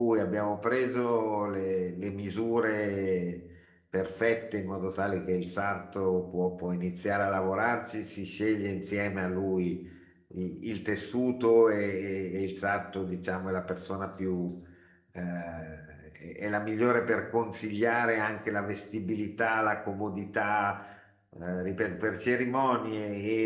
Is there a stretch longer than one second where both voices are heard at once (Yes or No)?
No